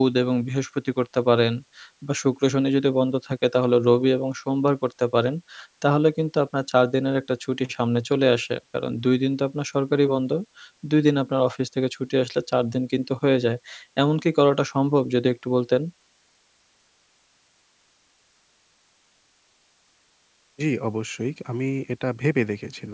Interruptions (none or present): none